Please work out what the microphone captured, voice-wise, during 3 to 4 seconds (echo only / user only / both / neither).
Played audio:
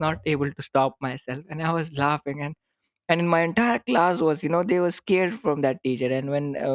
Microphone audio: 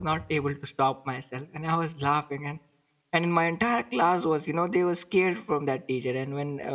echo only